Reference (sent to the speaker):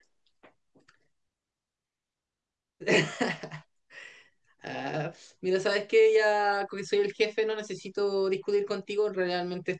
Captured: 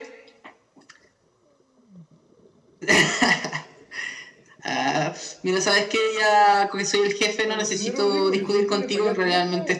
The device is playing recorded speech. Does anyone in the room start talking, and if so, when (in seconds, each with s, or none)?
7.5 s